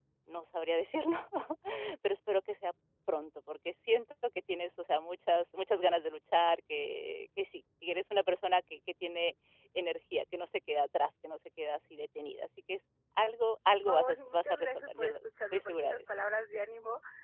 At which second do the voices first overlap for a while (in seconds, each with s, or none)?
13.8 s